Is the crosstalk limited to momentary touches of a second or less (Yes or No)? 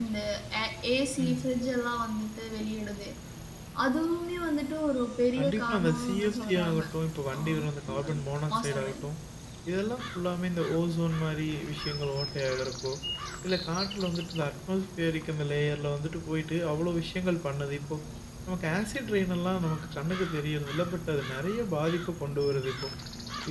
No